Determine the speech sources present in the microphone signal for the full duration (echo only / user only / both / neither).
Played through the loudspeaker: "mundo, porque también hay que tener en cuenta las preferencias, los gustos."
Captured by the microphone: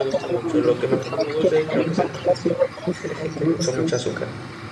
both